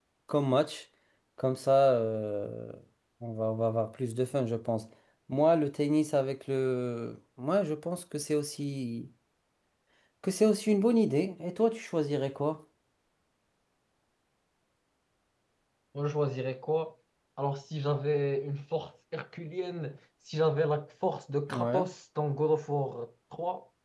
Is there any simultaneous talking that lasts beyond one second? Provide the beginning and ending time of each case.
none

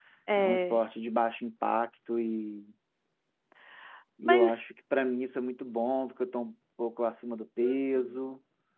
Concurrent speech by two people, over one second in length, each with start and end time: none

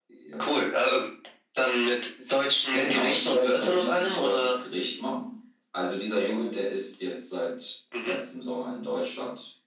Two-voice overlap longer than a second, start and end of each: 2.7-4.5

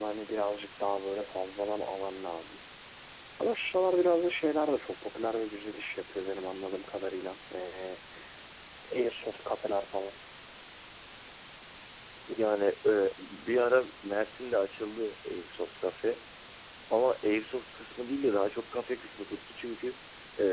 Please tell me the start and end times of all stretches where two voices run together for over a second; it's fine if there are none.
none

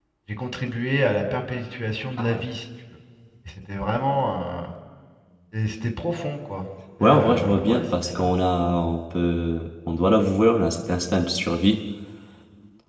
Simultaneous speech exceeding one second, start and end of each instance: 7.0-8.3

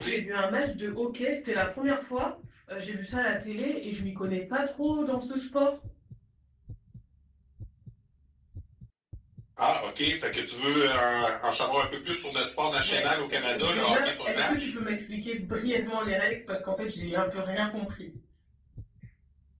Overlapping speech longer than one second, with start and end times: 12.8-14.7

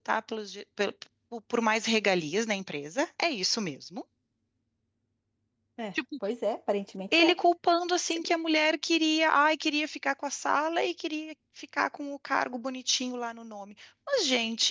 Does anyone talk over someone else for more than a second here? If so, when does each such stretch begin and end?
none

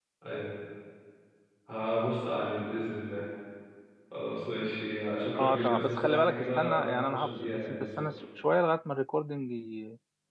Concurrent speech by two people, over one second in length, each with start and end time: 5.4-8.1

